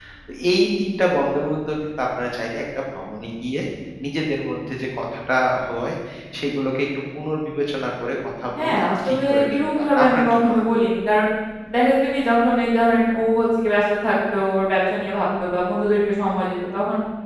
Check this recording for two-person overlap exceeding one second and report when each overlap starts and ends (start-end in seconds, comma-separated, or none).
8.6-10.7